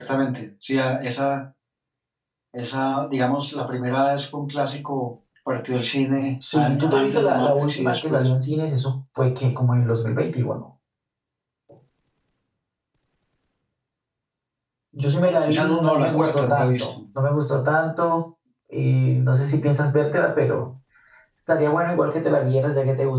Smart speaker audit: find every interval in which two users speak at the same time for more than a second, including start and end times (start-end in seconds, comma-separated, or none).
6.5-8.3, 15.5-16.9